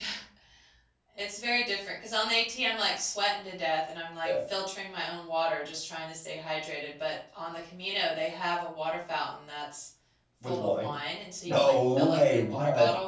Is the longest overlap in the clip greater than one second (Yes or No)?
Yes